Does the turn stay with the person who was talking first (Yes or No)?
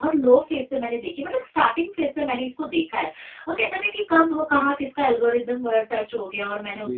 Yes